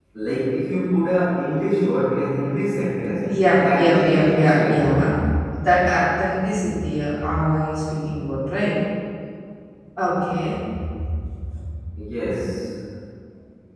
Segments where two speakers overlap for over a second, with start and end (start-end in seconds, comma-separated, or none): 3.6-5.0